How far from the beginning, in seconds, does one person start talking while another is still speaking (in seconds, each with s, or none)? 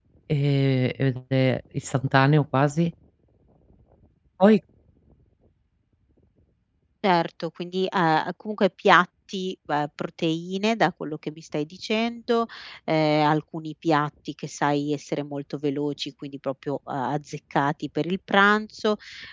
none